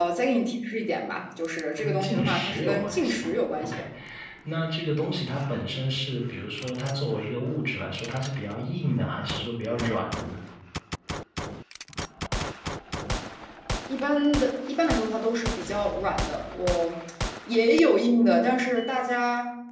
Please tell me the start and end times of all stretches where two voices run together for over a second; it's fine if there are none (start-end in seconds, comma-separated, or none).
1.8-3.2